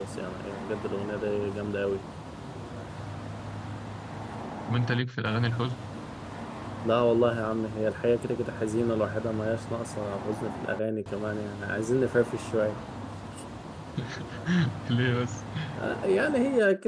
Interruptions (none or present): none